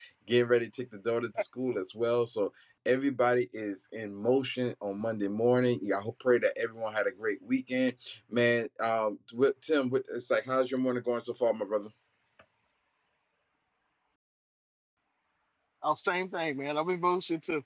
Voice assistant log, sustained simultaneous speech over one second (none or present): none